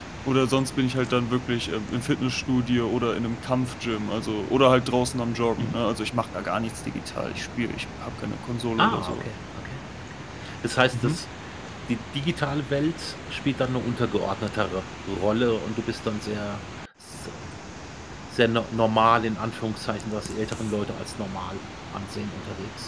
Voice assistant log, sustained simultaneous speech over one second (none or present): none